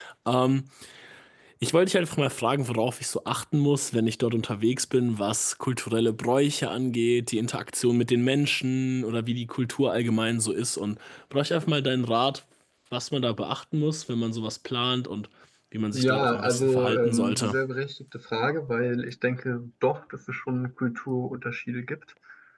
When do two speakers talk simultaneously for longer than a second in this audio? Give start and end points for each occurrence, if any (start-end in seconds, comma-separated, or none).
15.9-17.6